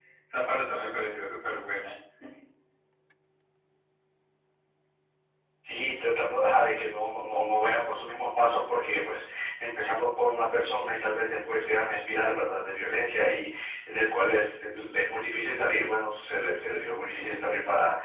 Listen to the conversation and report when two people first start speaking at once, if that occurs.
none

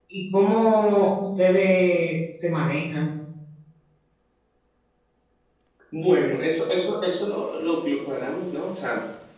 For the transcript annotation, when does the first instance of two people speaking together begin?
none

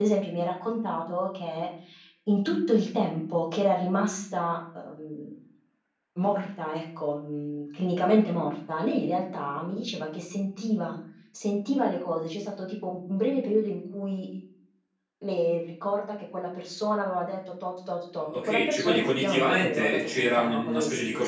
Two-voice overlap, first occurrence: 18.2 s

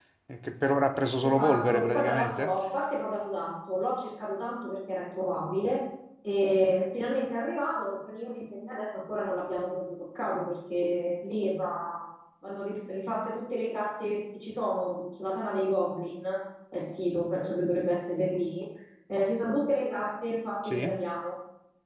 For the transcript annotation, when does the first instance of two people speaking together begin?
1.2 s

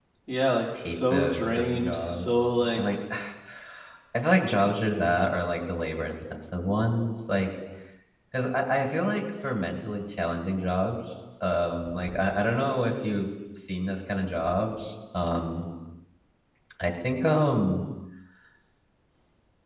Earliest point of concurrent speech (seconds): 0.8 s

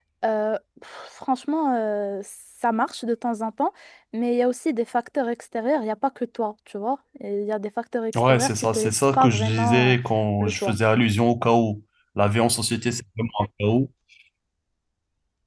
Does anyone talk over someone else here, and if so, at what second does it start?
8.1 s

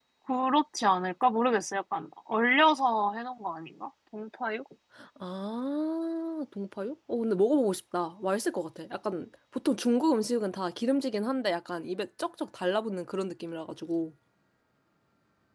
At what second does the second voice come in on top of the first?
none

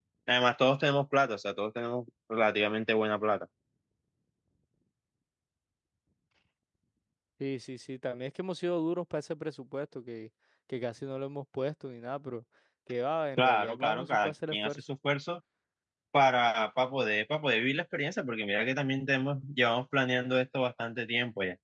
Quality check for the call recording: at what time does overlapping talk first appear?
13.4 s

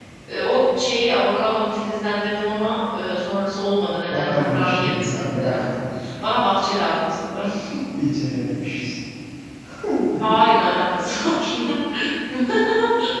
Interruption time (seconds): 4.1 s

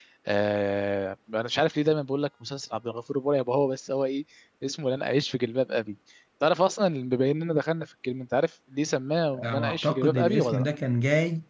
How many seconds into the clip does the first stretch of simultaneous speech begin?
9.3 s

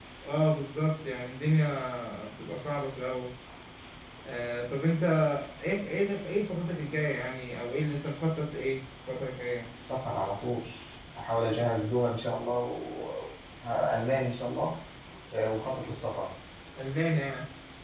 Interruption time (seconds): none

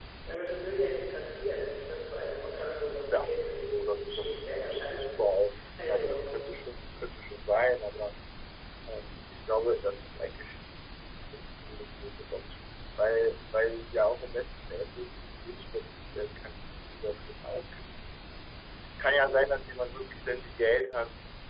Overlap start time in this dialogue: 3.1 s

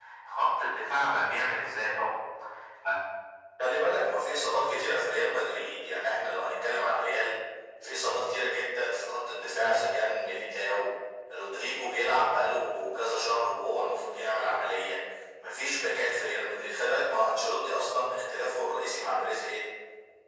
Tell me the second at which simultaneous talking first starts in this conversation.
none

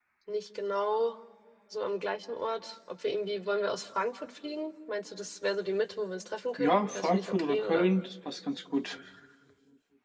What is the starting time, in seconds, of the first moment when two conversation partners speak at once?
6.6 s

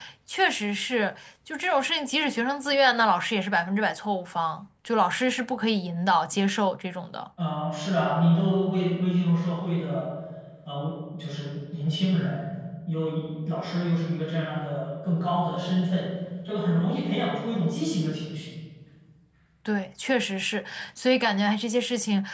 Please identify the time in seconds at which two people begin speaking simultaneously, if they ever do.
none

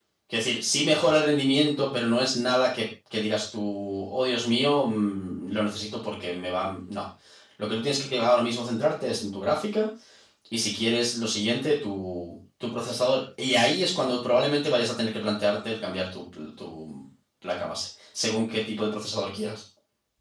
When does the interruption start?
none

